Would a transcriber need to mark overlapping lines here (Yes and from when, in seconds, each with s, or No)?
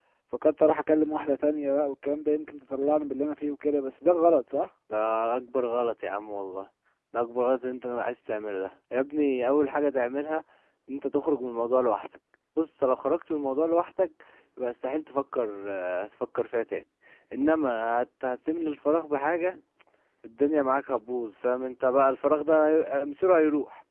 No